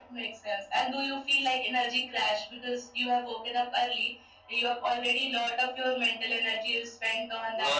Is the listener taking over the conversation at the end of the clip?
Yes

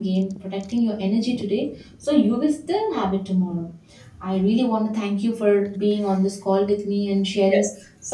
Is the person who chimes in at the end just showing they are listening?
Yes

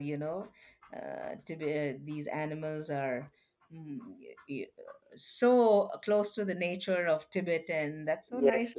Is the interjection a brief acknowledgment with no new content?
No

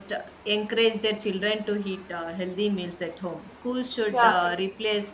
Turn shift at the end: No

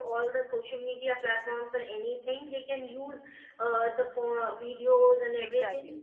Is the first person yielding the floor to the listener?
No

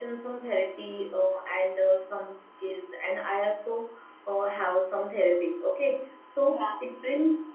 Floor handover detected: No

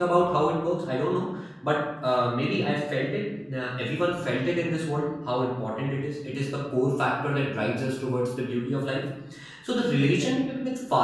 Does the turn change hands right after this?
No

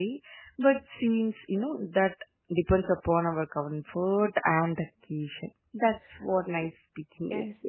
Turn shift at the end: Yes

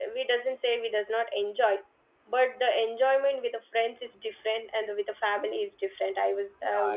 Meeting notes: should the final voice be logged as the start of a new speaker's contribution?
Yes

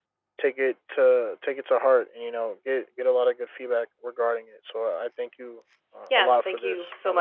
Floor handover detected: Yes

